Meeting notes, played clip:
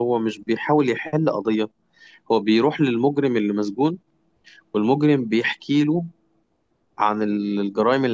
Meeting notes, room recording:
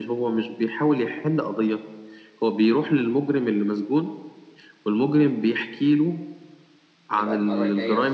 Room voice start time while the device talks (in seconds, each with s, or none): 7.1 s